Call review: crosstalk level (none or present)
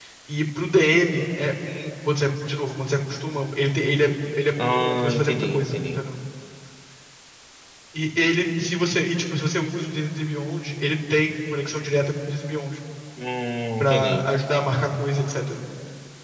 present